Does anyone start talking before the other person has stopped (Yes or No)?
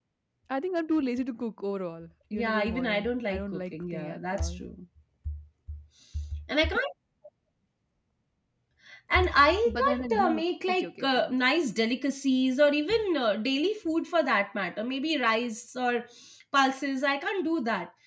Yes